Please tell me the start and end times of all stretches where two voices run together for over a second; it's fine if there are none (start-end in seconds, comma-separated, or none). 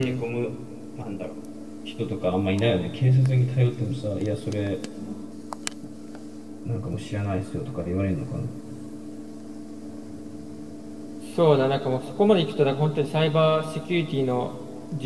none